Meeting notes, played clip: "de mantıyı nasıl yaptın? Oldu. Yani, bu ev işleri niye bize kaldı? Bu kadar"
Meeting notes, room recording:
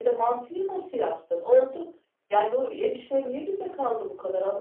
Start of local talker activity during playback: none

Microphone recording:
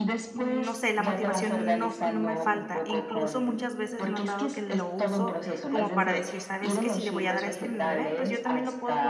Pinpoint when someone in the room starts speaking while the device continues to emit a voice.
0.3 s

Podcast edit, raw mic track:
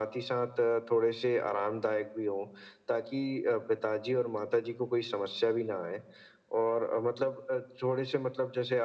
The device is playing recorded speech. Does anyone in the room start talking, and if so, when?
none

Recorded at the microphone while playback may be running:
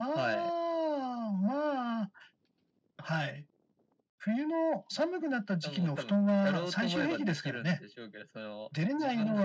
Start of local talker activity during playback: none

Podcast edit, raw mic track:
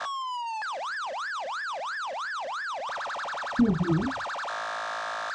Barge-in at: 3.6 s

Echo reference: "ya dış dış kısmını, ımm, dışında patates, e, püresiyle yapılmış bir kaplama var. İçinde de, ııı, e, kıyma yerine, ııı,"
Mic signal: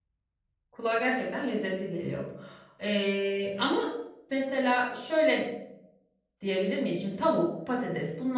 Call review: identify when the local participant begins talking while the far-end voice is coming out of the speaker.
0.7 s

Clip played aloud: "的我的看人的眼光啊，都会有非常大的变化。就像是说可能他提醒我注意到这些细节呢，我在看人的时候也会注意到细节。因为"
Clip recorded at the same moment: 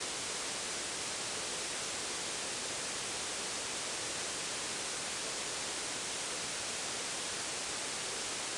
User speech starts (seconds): none

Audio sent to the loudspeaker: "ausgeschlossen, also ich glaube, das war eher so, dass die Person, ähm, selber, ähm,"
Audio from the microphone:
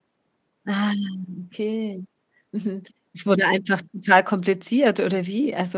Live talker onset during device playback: 0.6 s

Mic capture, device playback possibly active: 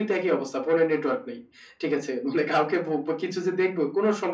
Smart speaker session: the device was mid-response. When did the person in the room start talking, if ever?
none

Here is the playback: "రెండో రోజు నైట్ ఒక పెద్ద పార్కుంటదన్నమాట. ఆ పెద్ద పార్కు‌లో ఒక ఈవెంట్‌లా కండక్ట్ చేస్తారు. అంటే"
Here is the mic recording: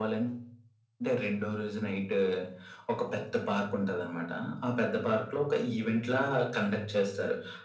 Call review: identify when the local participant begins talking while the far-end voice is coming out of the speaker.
none

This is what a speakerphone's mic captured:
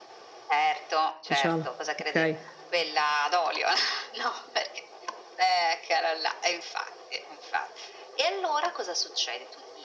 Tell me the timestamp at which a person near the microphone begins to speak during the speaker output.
1.3 s

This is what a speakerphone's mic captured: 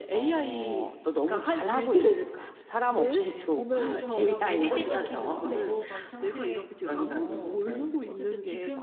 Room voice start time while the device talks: 3.0 s

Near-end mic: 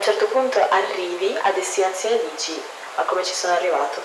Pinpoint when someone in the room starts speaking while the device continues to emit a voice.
none

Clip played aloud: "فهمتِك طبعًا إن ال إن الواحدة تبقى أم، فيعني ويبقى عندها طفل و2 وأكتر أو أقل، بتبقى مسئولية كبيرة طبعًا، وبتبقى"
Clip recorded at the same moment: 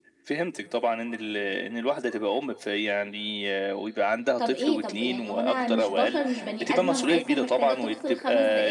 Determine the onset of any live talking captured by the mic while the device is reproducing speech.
4.4 s

